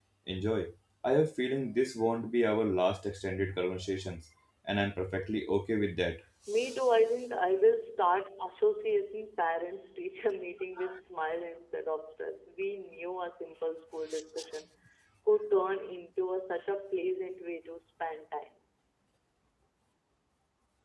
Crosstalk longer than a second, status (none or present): none